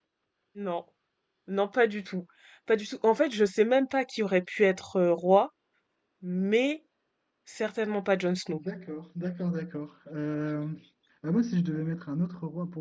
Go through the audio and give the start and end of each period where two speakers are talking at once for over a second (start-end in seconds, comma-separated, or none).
none